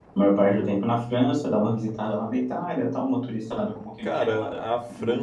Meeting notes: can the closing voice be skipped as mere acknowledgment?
No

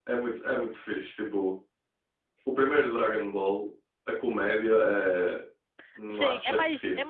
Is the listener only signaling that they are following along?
No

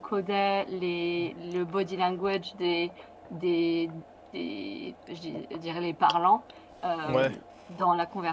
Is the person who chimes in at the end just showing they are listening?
Yes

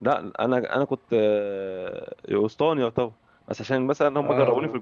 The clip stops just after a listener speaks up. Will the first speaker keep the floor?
Yes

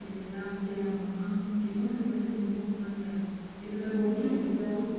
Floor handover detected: Yes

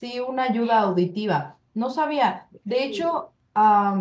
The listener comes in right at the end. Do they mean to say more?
No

